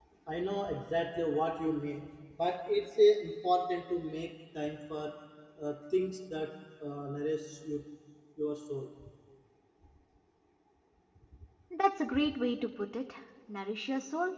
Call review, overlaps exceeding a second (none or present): none